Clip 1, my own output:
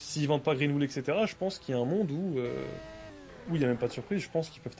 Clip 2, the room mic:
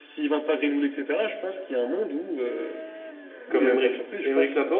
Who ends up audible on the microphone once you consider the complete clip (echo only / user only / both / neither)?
both